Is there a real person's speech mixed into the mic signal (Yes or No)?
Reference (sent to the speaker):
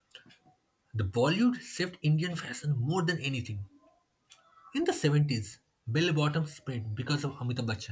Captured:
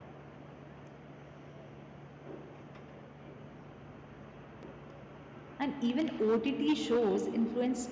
Yes